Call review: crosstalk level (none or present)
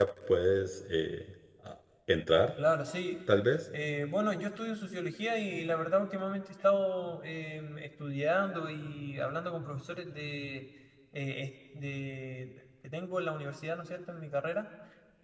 none